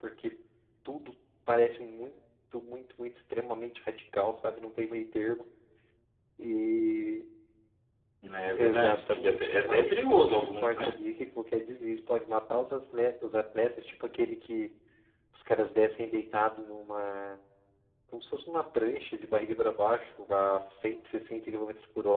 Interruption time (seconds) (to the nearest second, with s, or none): 9 s